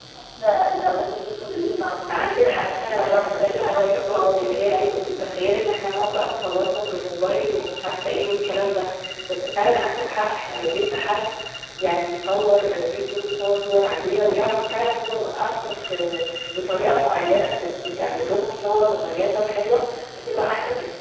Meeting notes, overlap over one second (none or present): present